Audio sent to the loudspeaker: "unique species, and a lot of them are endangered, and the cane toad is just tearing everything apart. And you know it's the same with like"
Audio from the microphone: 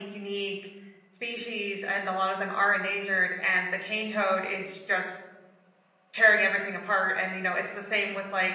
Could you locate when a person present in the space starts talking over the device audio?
none

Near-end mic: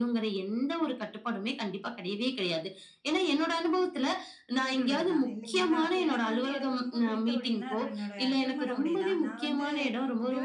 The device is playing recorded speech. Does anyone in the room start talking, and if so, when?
4.6 s

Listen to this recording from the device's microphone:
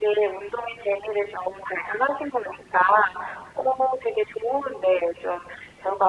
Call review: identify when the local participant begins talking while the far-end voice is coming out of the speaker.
none

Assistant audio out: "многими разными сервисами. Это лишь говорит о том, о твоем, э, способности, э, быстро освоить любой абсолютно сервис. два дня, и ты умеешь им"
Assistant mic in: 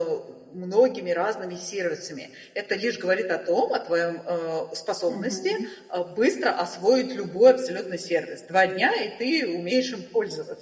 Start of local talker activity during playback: 5.1 s

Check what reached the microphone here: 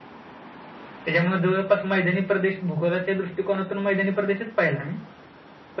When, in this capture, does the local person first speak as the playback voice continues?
none

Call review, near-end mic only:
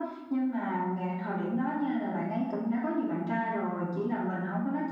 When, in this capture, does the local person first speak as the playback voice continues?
none

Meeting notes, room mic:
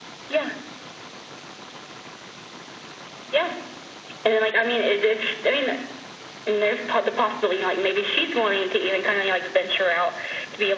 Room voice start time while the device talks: none

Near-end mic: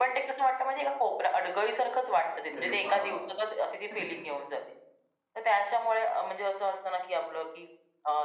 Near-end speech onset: 2.6 s

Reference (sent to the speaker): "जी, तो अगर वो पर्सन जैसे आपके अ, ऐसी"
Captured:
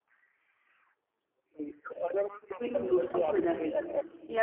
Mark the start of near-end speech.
2.6 s

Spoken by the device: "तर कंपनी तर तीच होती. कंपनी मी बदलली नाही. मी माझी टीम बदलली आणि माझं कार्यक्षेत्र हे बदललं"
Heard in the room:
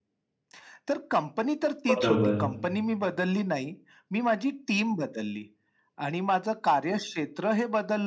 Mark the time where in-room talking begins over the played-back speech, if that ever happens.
1.9 s

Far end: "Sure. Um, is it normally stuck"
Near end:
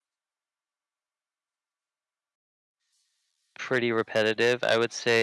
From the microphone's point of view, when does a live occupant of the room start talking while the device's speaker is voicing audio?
3.6 s

